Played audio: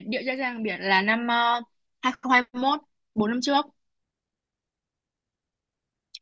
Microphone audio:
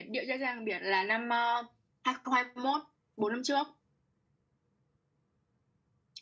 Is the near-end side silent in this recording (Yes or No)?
Yes